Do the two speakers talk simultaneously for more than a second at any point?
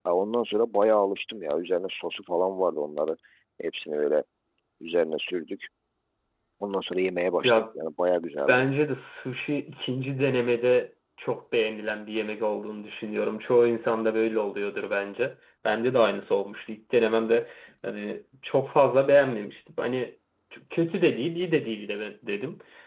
No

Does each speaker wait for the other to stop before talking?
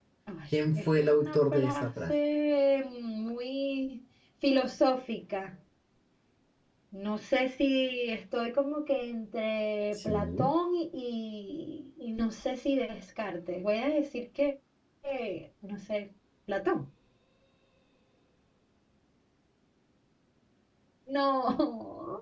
No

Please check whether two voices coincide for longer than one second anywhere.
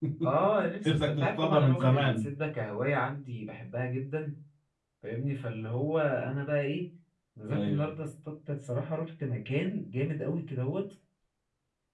Yes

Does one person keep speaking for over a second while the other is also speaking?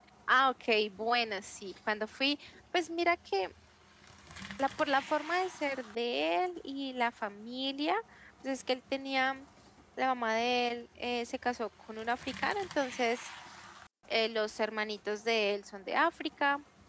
No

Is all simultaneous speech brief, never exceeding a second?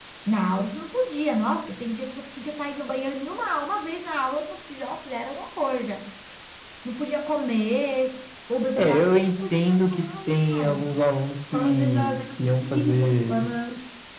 No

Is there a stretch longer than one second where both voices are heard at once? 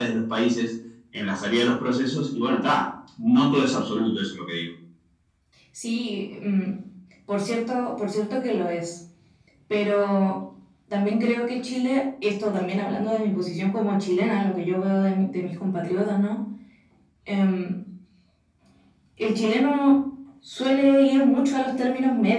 No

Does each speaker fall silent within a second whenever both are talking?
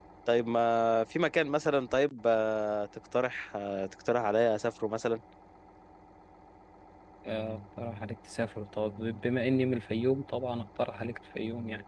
Yes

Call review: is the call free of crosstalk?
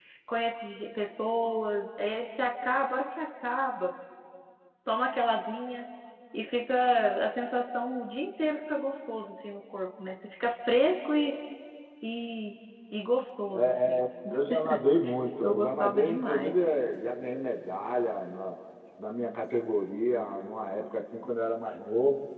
No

